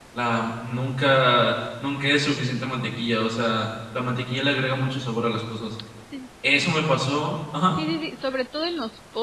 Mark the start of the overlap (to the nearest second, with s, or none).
none